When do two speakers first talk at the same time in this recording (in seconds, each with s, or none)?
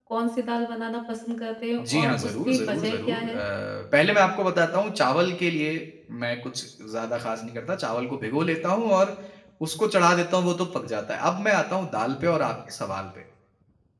1.8 s